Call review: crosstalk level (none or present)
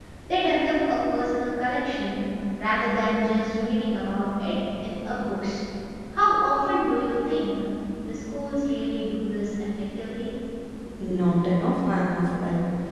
none